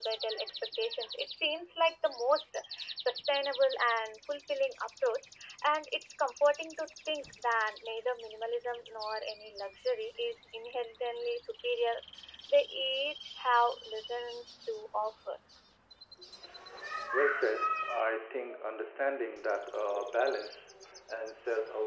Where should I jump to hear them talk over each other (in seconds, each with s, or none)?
none